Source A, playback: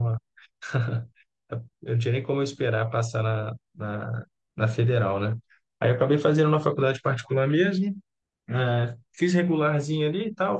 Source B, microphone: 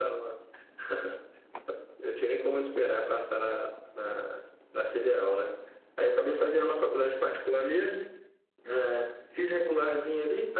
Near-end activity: none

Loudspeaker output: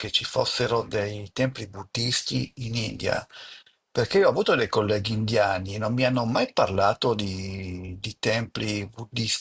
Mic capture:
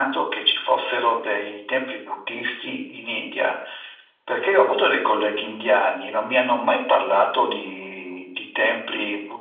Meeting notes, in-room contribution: none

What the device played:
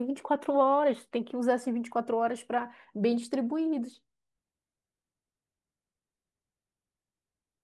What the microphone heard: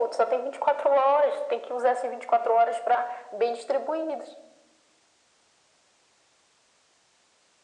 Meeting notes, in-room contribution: none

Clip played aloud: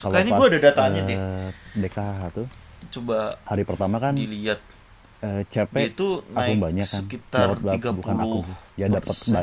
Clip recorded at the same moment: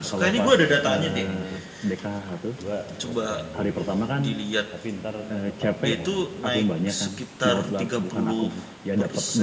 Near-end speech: present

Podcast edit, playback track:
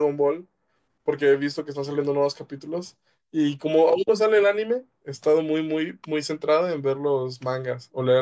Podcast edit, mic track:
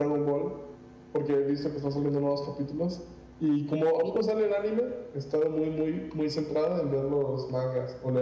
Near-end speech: none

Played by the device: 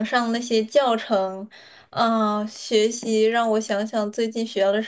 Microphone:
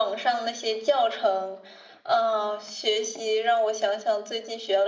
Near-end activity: none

